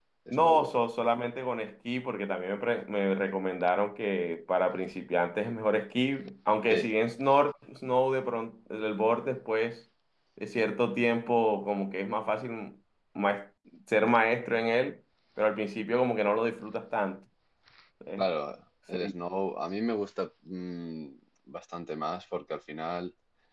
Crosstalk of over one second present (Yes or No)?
No